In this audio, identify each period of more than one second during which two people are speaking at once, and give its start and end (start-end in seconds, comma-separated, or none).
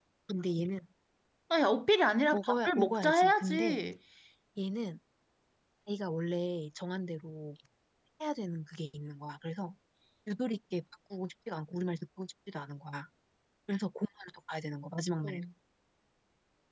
2.3-3.8